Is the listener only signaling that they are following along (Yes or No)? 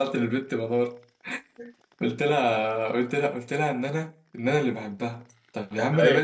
Yes